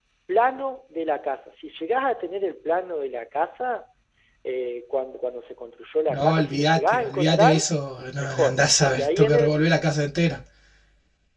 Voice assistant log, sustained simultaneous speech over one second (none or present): present